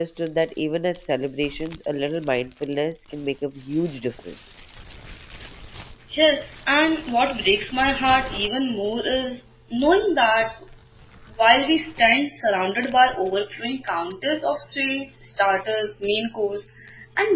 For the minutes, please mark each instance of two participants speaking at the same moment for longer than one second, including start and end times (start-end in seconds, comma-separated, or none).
none